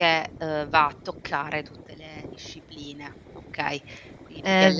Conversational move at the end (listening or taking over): taking over